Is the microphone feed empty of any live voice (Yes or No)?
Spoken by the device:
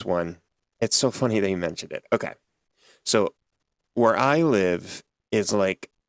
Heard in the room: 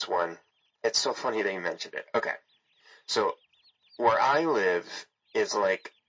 Yes